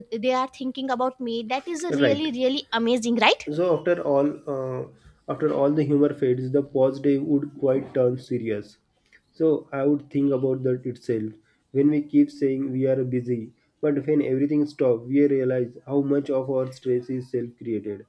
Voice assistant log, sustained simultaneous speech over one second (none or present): none